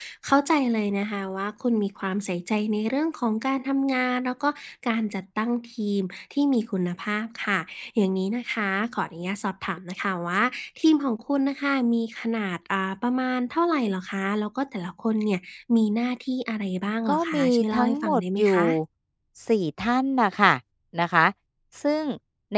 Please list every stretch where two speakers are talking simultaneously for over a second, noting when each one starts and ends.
17.1-18.6

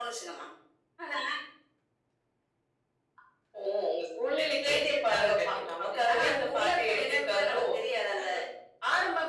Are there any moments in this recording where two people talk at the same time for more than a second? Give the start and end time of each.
4.7-7.6

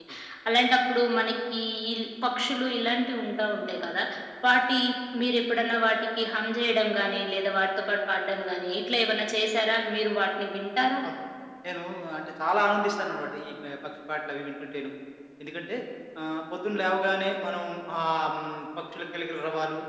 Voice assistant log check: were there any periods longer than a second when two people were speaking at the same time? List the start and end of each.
none

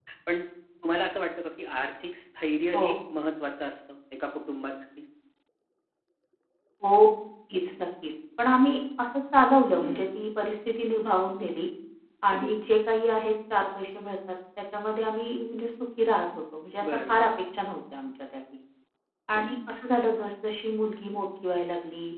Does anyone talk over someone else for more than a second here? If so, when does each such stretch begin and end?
none

